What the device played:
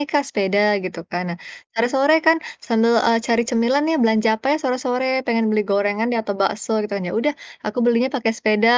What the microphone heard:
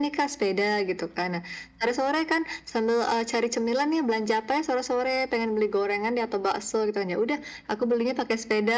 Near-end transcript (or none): none